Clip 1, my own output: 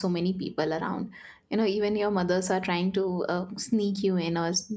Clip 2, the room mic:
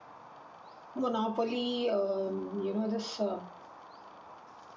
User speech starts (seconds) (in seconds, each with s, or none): 0.9 s